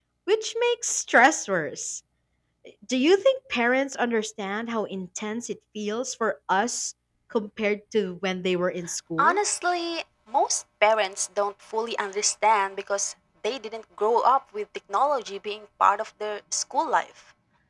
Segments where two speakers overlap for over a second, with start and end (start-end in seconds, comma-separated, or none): none